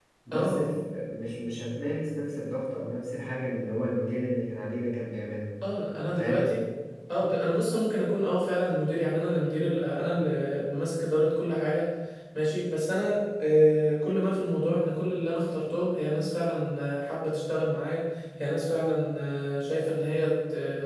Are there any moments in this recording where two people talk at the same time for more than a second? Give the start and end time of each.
none

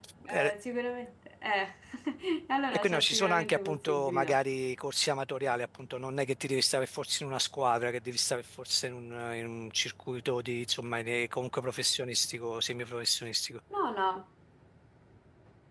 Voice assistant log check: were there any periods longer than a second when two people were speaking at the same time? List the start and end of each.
2.7-4.4

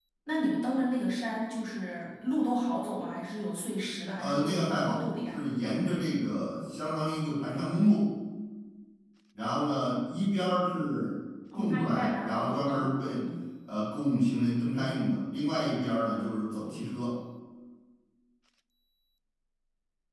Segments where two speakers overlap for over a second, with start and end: 4.2-5.4, 11.5-13.2

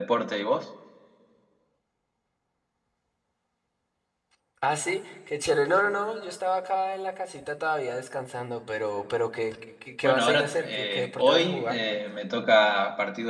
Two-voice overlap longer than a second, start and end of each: 10.0-11.8

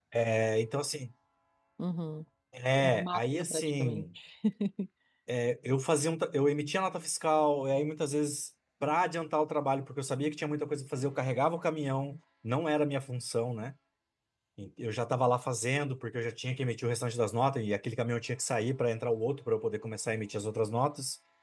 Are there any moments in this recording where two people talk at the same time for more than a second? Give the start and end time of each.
2.8-4.0

